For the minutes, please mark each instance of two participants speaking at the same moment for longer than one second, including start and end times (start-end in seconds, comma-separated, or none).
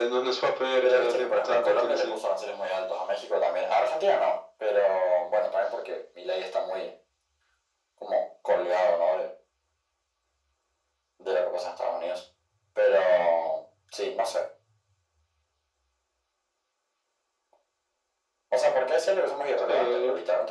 0.8-2.2